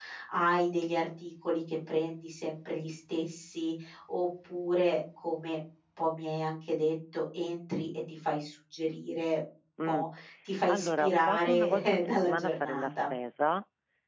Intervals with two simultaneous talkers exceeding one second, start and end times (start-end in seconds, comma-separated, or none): 10.7-13.0